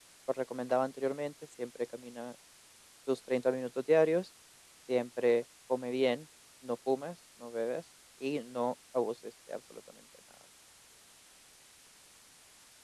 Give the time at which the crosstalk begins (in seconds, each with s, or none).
none